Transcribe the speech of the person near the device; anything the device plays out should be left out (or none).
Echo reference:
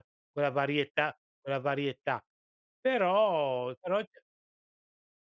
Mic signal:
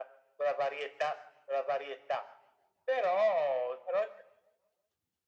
none